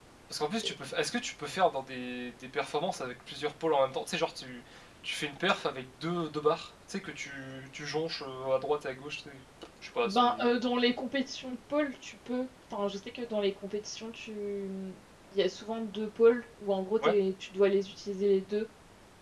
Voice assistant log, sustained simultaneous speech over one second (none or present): none